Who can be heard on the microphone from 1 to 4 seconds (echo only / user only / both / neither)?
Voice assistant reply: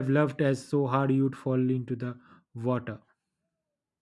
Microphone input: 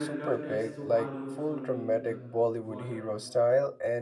both